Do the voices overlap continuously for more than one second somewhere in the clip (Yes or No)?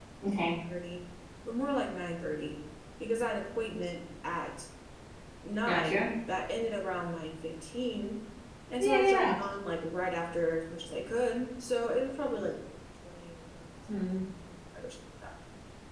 No